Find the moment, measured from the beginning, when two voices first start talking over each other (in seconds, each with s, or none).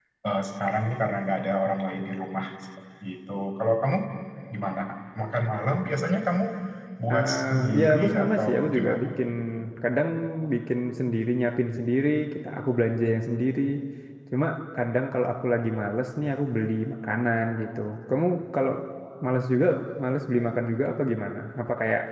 7.1 s